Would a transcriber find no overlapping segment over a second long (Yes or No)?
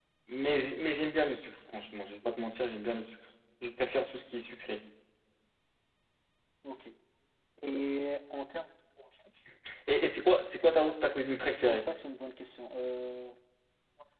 Yes